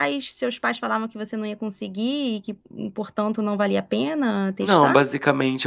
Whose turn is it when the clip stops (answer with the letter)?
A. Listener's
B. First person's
A